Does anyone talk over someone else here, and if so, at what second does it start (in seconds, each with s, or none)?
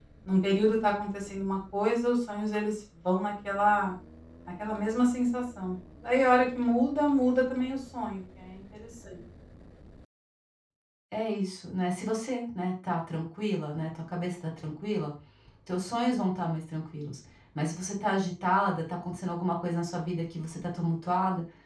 none